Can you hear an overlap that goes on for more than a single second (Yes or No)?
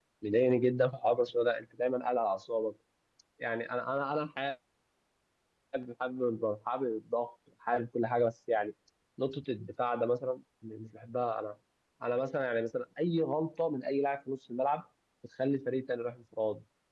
No